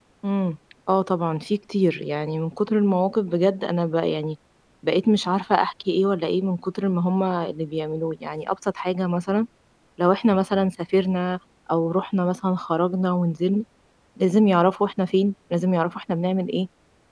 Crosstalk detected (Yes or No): No